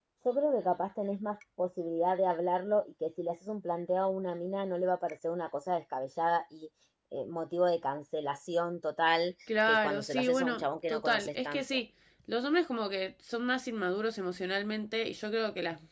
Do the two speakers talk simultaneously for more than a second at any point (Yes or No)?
Yes